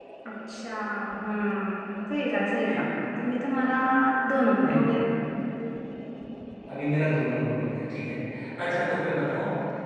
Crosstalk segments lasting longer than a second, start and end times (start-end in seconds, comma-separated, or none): none